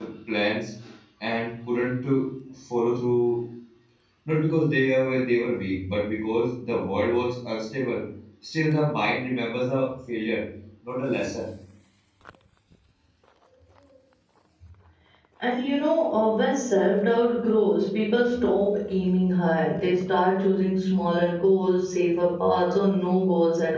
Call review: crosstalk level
none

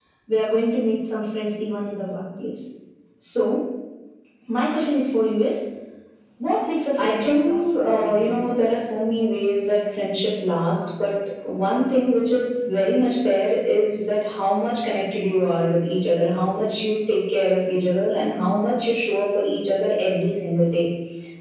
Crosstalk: present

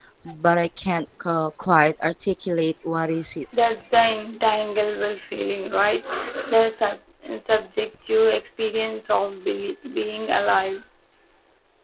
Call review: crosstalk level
none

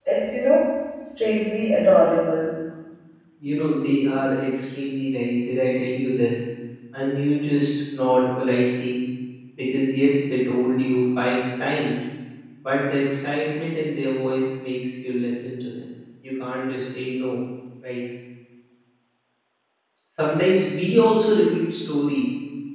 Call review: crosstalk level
none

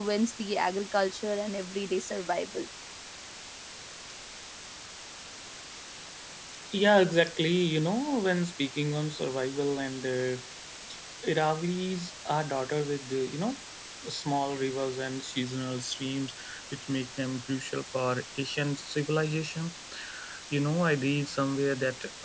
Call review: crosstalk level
none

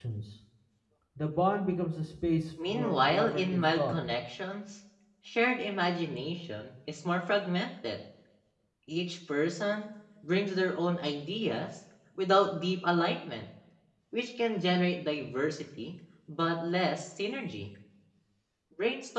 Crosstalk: present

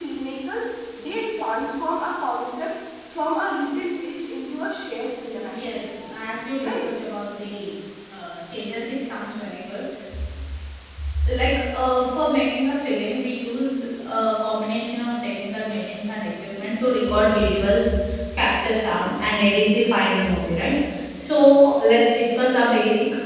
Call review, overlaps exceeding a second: present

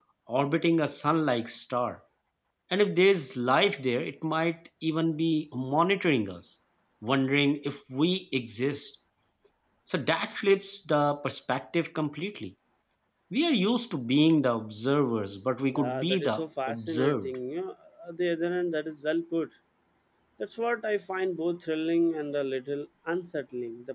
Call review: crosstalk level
present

